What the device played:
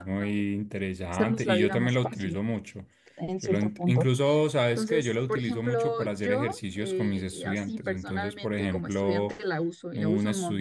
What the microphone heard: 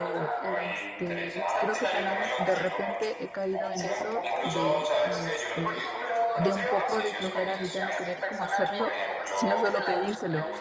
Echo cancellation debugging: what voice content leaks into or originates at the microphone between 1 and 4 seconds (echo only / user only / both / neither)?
both